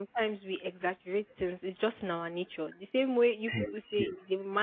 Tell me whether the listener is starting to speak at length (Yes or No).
No